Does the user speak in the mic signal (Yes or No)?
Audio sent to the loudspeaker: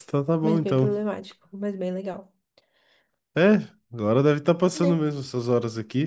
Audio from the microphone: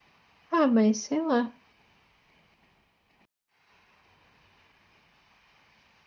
Yes